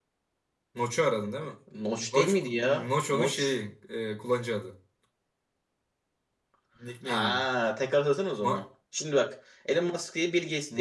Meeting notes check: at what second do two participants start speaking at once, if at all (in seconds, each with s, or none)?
2.1 s